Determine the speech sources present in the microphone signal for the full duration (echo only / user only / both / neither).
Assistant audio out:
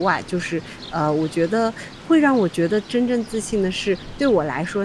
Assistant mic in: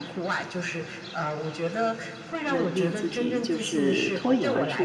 both